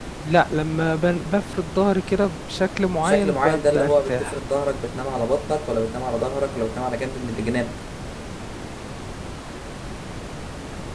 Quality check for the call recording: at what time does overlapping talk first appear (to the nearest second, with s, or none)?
3 s